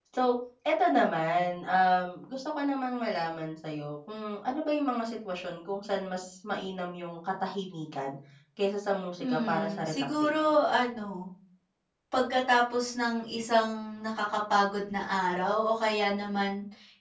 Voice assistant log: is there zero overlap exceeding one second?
No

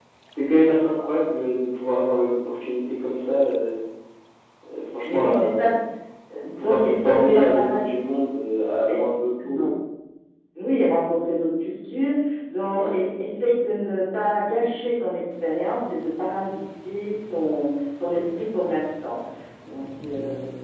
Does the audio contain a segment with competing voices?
Yes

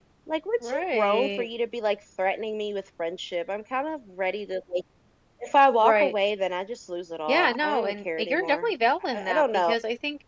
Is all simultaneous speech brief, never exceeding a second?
No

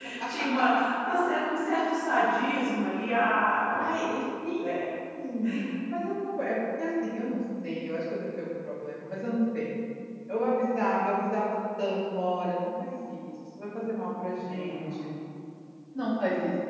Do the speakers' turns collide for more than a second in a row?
No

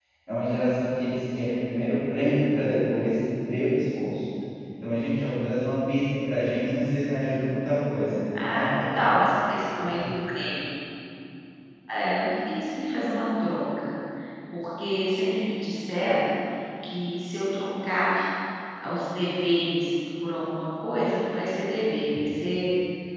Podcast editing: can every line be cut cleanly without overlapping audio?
Yes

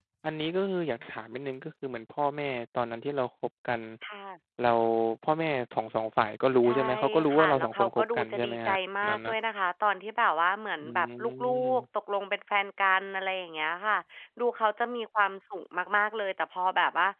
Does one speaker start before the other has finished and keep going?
Yes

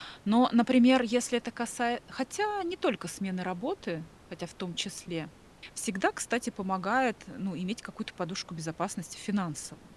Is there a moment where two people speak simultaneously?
No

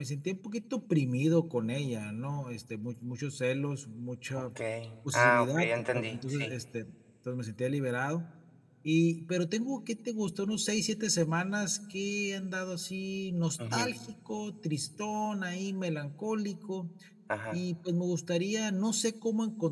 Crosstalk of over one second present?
Yes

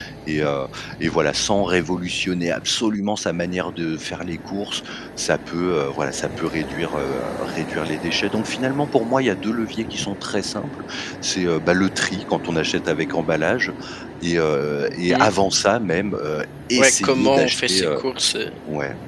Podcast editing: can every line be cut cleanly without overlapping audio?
No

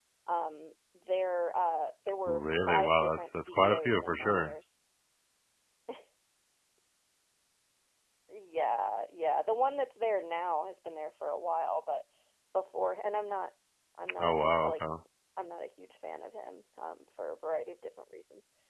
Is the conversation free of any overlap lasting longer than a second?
No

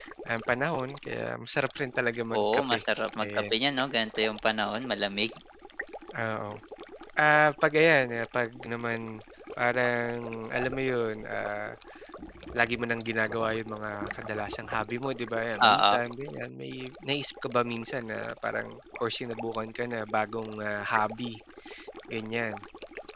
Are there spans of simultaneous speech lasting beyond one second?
No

